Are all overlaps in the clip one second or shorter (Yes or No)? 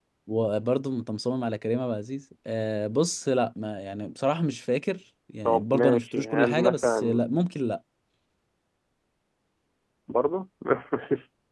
No